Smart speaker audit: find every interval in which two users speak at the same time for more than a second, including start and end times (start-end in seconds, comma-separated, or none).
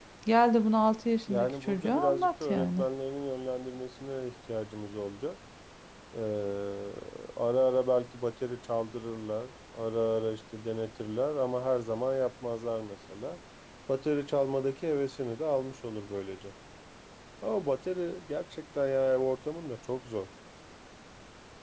1.3-2.9